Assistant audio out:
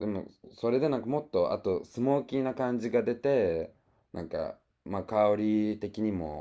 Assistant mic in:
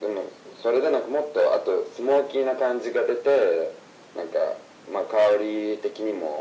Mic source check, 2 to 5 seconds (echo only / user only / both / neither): echo only